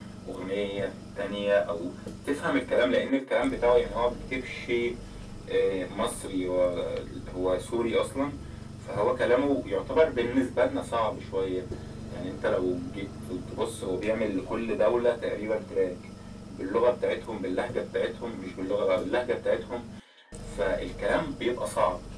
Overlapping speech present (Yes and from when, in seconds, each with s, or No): No